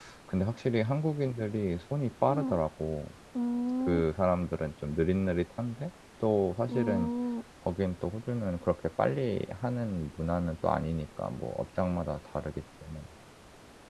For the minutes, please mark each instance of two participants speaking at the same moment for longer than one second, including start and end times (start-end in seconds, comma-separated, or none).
none